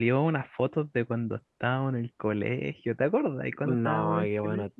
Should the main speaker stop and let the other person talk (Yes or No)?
Yes